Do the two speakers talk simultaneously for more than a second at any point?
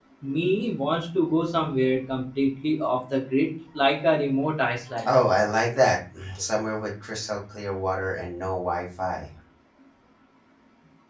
No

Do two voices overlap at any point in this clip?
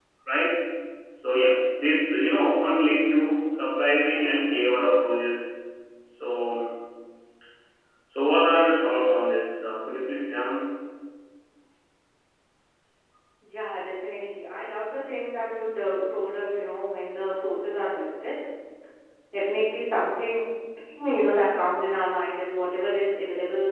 No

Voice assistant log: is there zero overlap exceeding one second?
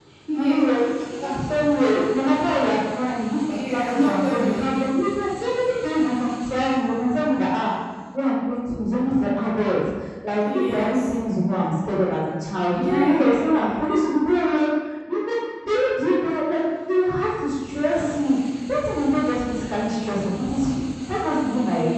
No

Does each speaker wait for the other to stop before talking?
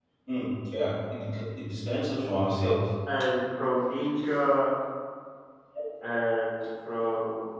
Yes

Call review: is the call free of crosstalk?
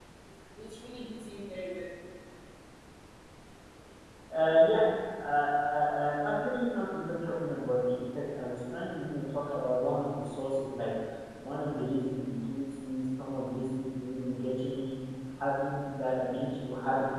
Yes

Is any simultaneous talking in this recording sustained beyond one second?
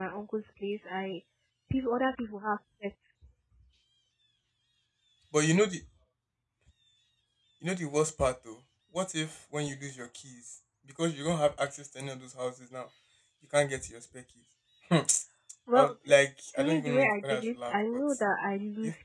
Yes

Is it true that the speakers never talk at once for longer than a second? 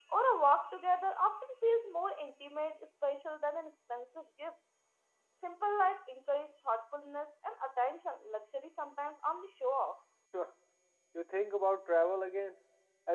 Yes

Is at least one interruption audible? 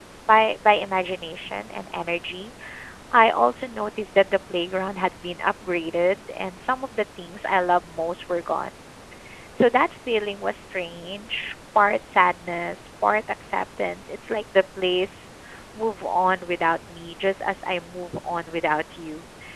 No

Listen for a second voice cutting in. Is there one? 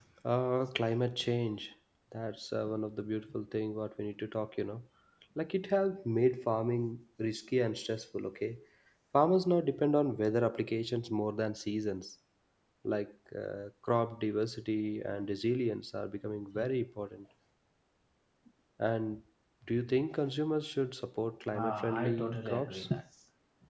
Yes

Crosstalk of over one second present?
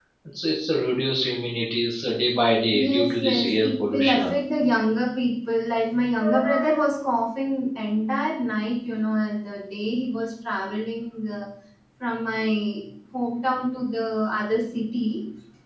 Yes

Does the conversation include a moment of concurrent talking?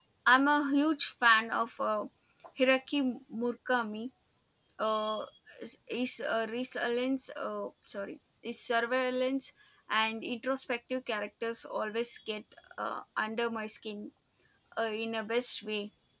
No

